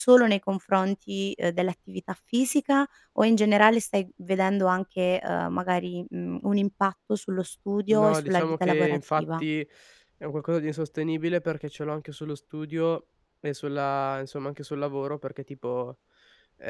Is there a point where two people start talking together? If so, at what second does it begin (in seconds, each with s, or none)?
7.9 s